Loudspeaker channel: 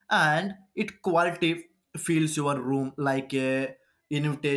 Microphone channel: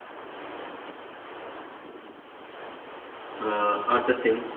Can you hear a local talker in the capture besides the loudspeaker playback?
Yes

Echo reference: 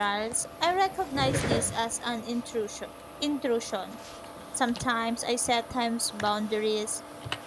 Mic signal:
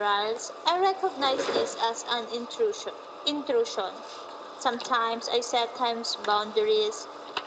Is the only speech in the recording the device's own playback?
Yes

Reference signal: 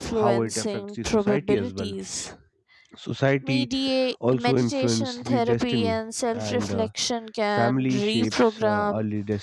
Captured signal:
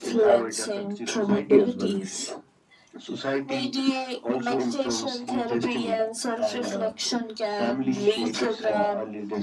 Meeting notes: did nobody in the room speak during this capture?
Yes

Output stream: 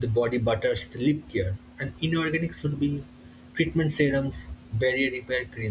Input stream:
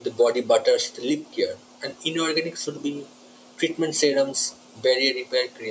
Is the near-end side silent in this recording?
Yes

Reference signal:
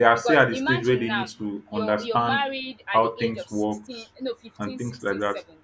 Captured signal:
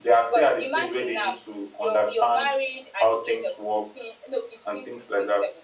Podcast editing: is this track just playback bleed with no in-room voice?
Yes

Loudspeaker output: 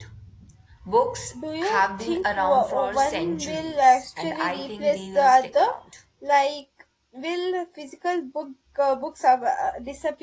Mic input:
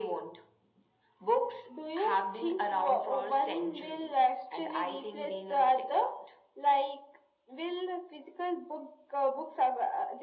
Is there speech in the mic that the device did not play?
No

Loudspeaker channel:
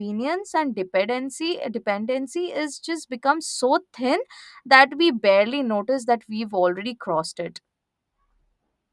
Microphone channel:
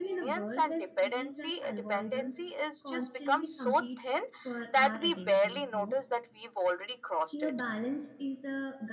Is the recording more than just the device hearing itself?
Yes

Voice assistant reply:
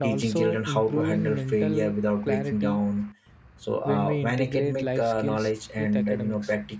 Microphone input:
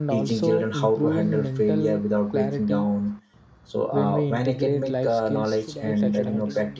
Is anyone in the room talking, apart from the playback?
Yes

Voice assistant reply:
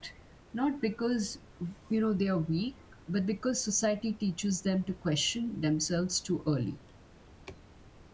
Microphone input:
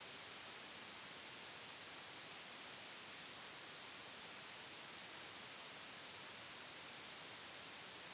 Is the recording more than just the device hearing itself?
No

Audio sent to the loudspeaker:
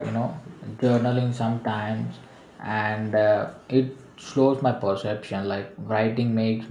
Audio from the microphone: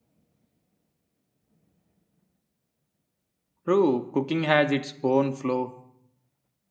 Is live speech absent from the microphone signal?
No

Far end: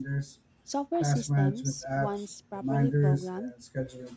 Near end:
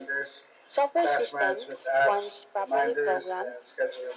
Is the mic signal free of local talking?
Yes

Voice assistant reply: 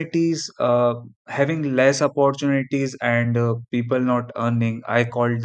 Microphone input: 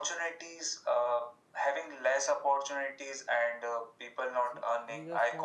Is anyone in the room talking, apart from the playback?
Yes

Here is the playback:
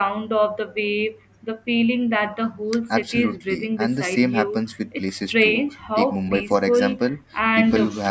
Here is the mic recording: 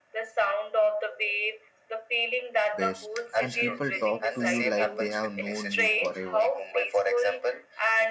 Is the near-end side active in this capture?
Yes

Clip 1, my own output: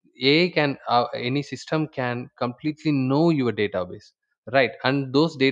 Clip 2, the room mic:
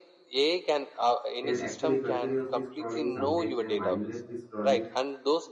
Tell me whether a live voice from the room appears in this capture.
Yes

